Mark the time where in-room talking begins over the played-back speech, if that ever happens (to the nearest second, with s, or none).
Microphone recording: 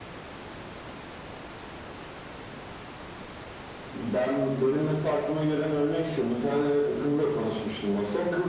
none